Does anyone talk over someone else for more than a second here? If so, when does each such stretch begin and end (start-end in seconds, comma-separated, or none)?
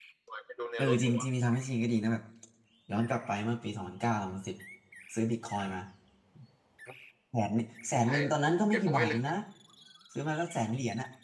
none